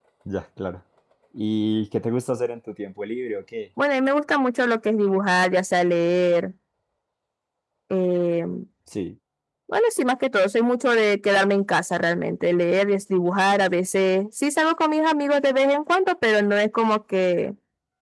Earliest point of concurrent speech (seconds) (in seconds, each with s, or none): none